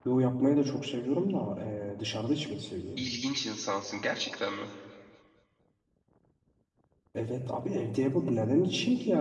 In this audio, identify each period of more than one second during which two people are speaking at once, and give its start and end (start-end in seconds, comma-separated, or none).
none